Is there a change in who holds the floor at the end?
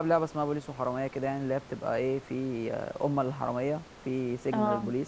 No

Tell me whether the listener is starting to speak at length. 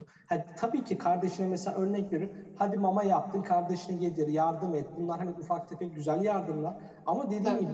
No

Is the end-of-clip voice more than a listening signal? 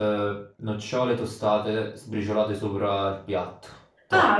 Yes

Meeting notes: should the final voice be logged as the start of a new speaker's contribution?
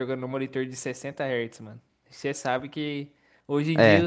No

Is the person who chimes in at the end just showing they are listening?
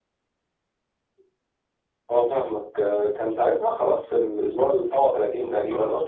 No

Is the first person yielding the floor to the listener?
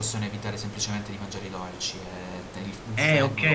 Yes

